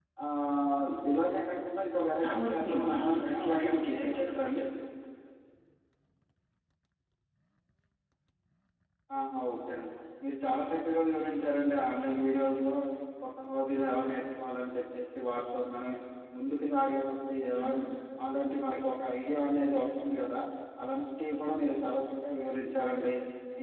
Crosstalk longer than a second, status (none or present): present